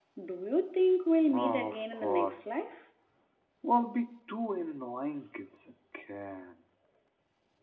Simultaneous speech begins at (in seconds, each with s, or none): 1.3 s